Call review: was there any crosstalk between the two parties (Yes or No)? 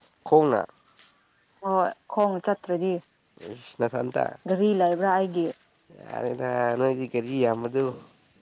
No